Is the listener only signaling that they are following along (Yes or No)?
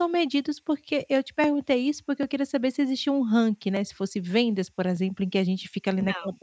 Yes